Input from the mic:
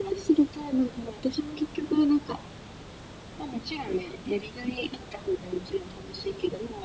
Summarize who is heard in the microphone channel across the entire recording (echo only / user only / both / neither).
echo only